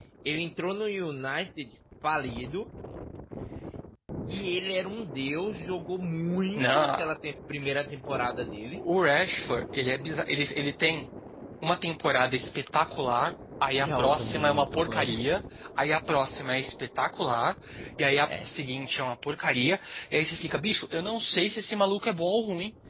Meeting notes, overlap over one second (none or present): present